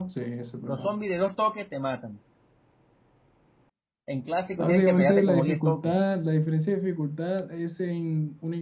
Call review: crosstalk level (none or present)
present